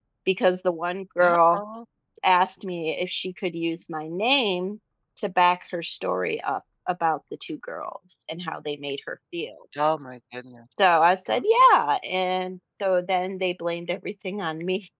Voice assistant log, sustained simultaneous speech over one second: none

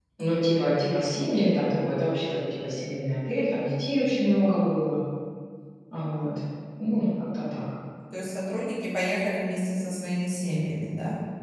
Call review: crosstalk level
none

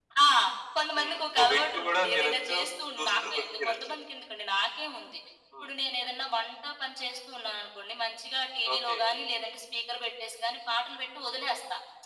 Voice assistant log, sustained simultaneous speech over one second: present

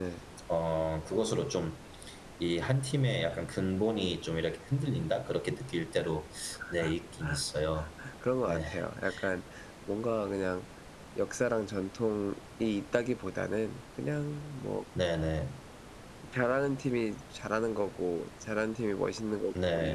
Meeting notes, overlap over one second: none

